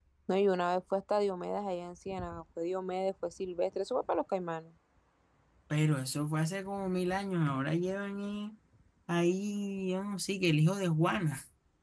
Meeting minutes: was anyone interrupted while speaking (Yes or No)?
No